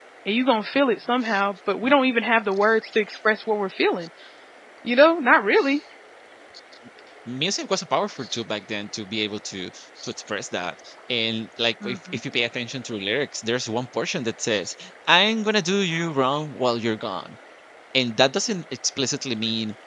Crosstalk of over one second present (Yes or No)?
No